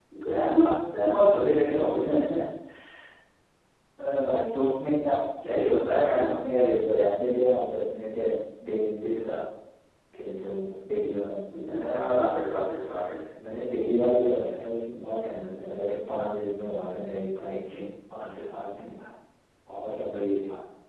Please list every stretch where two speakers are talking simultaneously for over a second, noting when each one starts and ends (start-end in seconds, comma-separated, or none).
none